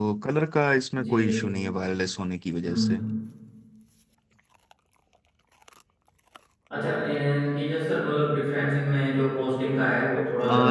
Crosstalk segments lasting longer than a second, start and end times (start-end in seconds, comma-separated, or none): none